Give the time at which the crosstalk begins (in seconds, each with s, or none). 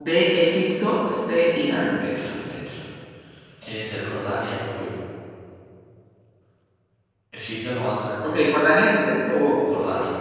none